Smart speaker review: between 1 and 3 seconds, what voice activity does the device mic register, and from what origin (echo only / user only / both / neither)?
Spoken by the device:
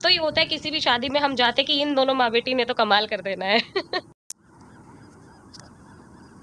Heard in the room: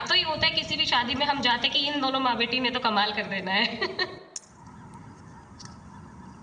echo only